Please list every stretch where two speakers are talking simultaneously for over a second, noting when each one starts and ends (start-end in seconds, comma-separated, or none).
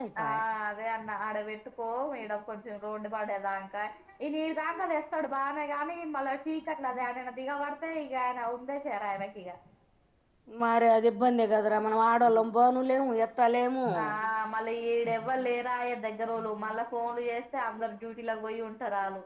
none